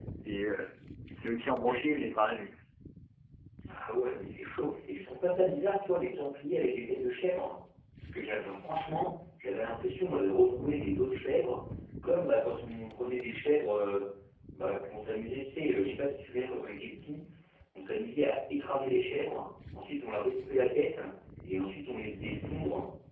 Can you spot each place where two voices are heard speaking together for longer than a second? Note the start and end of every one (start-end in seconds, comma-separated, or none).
none